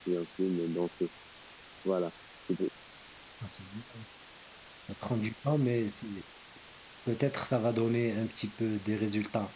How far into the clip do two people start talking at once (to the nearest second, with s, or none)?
none